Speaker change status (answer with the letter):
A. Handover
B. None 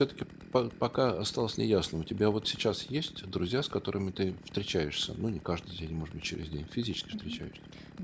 A